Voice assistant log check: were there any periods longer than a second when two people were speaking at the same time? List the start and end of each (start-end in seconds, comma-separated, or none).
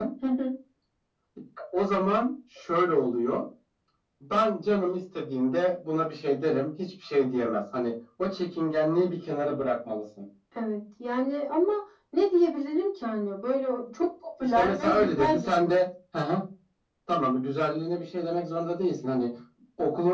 14.4-15.8